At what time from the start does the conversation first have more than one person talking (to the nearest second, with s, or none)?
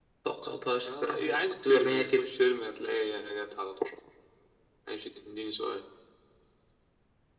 1 s